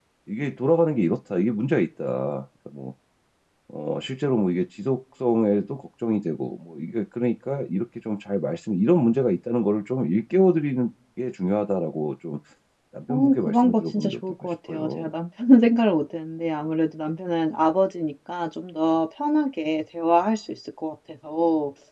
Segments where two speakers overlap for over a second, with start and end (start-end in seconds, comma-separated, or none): 13.1-15.1